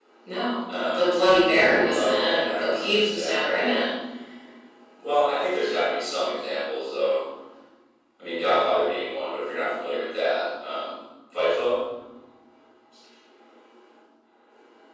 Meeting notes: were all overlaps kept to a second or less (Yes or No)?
No